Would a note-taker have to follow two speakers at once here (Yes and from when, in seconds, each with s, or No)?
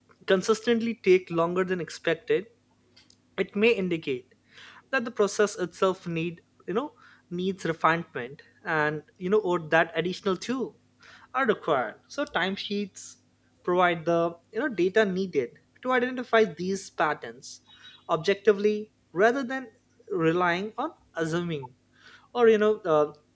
No